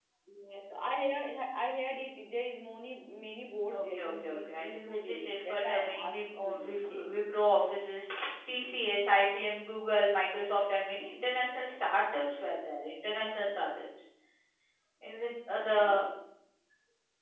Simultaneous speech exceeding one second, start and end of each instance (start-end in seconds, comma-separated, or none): 3.7-7.1